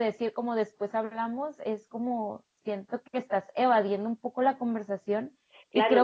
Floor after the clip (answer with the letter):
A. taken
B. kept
A